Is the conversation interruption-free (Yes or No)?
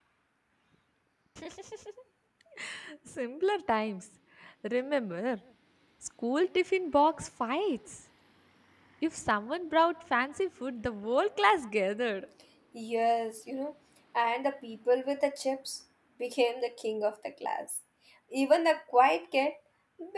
Yes